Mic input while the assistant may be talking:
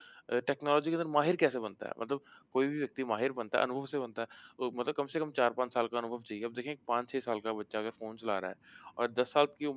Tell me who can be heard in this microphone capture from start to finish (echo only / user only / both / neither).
user only